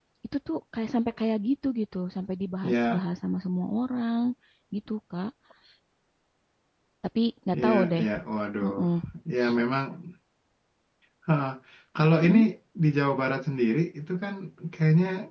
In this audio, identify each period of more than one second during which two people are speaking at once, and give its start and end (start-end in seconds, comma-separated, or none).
none